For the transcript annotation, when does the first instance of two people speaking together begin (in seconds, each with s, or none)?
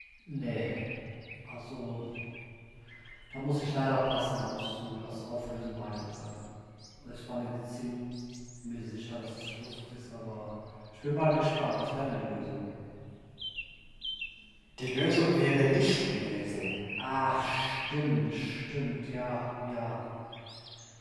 none